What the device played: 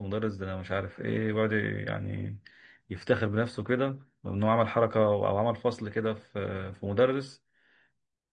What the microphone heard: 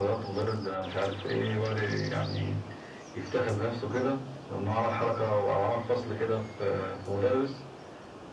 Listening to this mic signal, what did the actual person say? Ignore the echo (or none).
none